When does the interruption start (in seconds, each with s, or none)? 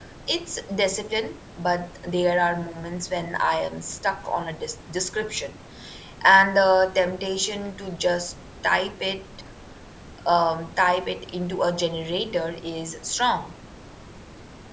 none